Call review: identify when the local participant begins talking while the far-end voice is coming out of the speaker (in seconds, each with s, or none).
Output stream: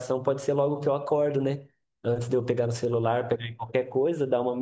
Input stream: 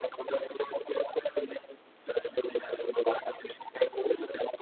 none